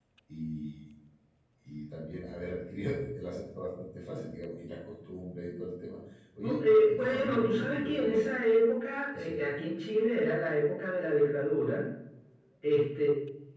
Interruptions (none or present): present